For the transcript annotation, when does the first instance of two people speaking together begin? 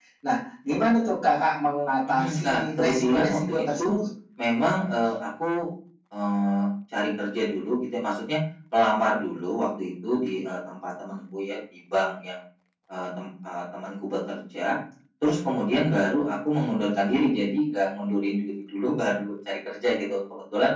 2.1 s

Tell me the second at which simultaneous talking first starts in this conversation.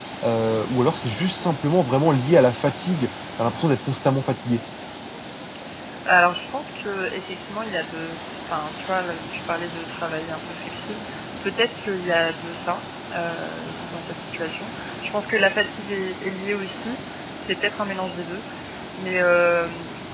none

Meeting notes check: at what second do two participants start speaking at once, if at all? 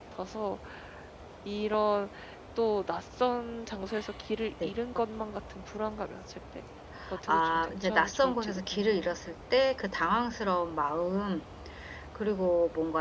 7.3 s

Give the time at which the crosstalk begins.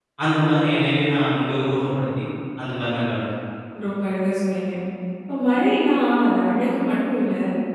none

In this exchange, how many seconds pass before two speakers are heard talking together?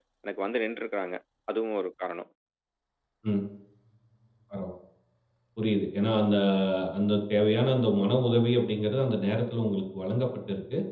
none

